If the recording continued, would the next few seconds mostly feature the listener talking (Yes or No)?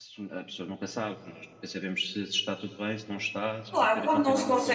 Yes